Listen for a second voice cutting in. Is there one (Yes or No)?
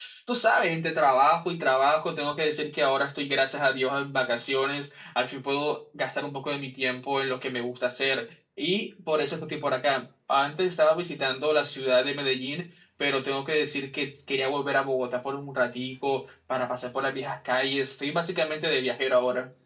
No